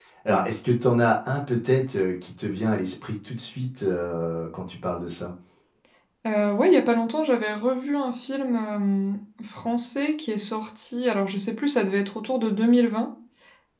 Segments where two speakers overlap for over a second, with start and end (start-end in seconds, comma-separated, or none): none